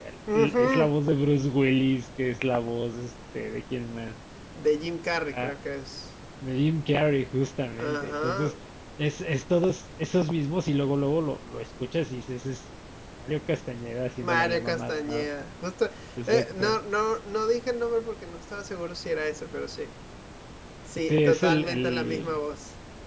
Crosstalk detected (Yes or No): Yes